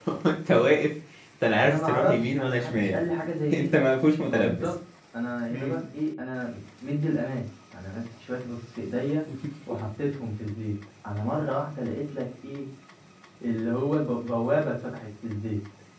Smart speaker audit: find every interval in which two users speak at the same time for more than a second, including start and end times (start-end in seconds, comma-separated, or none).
1.6-3.0